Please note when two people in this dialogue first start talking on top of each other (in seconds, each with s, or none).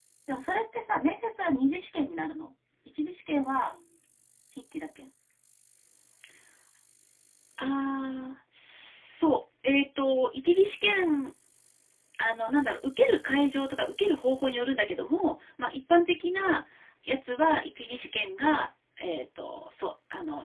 none